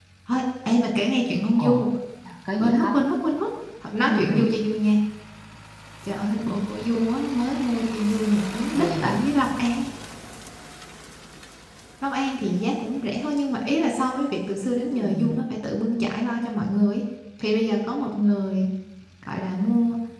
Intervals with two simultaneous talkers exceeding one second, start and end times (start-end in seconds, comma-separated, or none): none